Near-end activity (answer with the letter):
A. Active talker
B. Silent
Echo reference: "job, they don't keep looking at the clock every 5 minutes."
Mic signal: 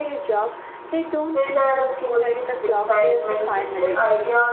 A